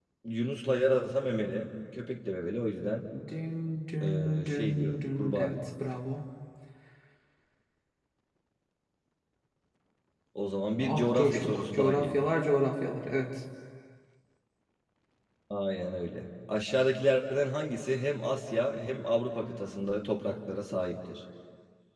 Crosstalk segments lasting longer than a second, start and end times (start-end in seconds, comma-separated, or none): 4.0-5.5, 10.8-12.2